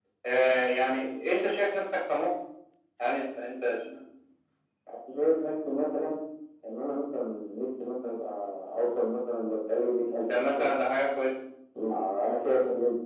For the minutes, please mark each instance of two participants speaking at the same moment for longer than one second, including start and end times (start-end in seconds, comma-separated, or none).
none